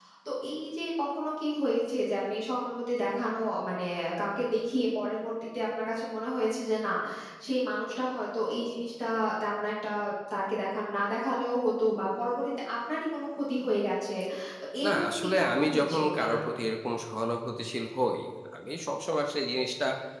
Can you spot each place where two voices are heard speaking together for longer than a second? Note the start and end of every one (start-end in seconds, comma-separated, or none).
14.8-16.4